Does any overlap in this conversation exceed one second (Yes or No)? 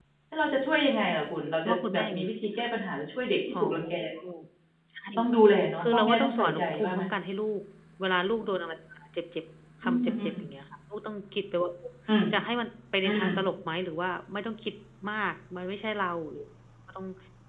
Yes